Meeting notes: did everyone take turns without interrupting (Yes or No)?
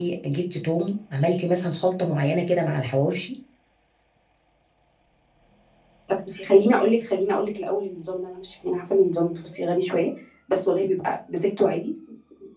Yes